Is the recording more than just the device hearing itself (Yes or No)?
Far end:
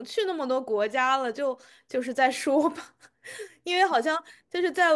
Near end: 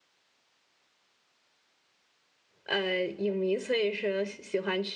Yes